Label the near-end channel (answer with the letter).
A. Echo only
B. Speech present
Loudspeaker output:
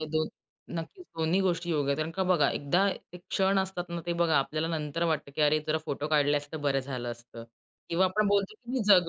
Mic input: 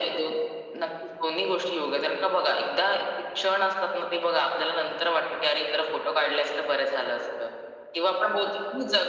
A